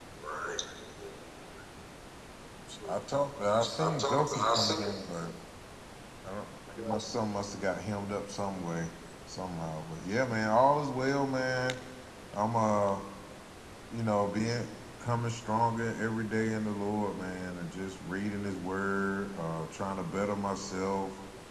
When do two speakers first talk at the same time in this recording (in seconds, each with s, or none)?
3.6 s